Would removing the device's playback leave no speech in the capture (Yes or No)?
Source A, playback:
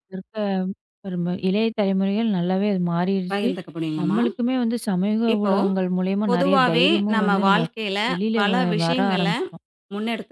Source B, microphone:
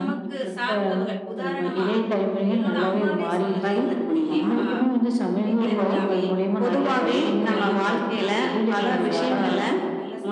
No